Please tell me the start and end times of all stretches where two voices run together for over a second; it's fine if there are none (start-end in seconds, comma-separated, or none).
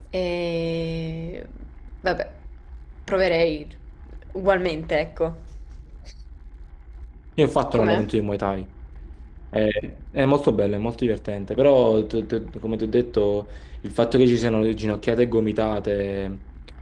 none